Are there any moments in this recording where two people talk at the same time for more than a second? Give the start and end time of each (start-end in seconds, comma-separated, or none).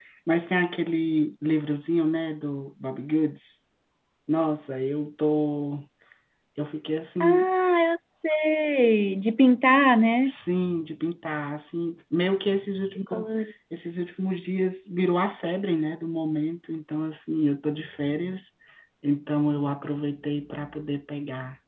none